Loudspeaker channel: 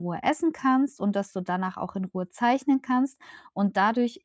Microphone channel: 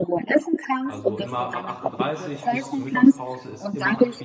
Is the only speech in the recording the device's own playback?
No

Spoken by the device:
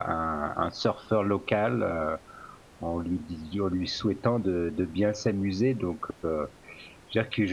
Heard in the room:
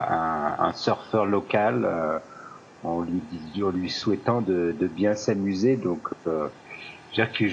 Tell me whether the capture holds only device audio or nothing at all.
Yes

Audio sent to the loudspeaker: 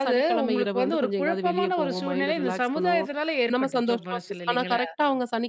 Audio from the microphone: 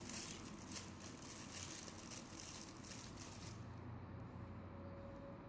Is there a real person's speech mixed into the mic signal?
No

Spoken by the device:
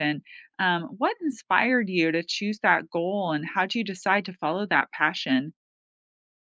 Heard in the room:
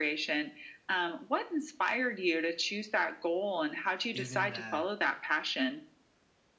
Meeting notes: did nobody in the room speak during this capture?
No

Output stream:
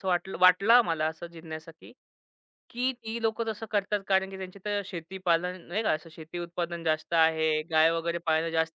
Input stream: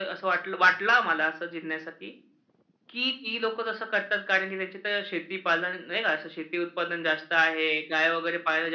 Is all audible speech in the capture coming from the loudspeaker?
Yes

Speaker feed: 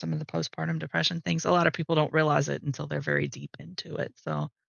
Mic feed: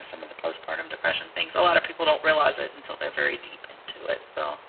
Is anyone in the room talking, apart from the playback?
No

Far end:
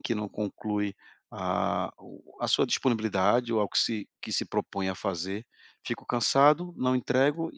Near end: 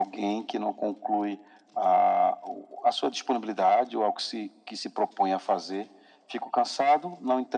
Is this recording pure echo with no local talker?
Yes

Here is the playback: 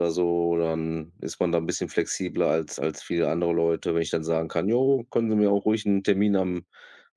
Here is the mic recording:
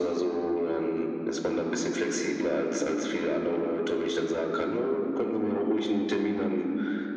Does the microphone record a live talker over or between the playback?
No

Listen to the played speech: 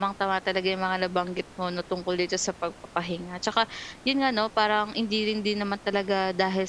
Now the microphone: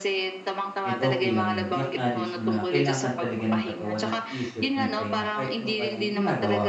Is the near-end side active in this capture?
Yes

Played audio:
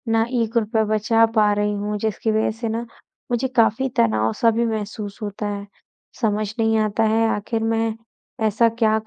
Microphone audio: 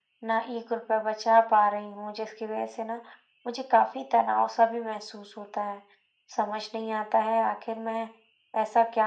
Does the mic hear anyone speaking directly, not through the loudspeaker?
No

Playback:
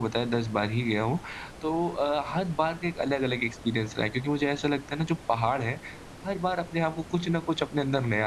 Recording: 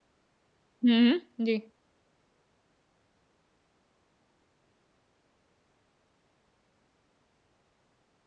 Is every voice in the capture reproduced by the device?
No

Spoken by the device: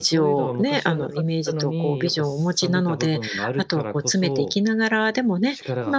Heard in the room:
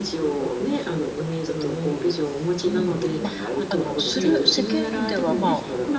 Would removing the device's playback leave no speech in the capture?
No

